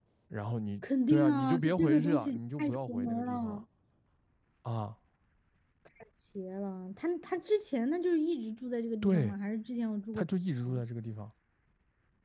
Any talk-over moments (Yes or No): Yes